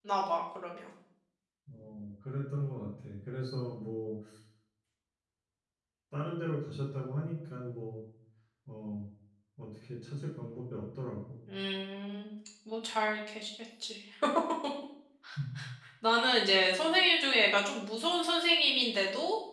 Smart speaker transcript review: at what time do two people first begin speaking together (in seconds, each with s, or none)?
none